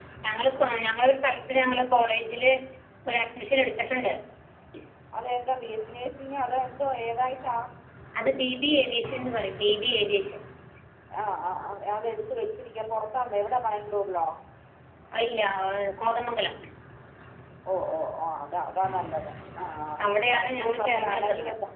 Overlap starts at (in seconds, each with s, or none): 20.0 s